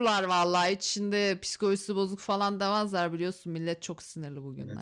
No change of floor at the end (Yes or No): No